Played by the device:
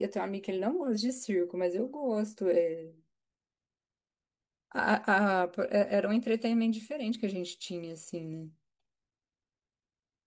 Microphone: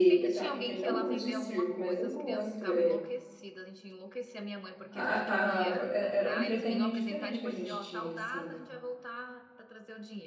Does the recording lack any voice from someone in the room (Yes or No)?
No